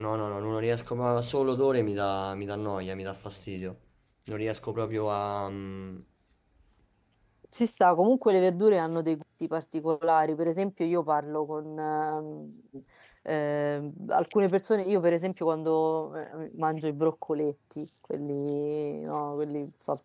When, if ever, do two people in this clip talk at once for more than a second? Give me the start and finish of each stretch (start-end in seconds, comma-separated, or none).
none